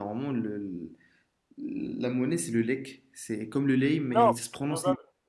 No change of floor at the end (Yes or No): No